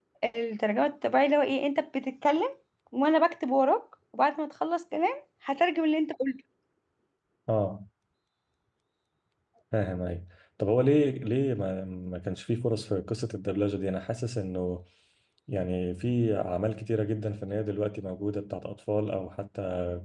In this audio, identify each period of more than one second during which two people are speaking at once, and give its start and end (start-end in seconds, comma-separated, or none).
none